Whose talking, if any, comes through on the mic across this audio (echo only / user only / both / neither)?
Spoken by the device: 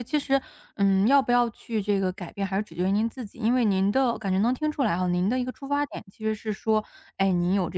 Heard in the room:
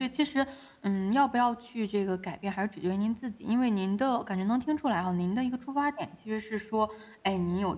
echo only